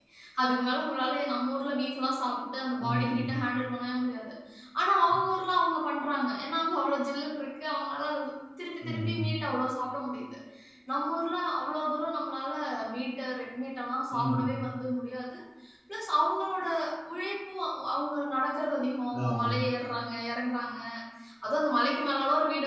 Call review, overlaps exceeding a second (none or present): none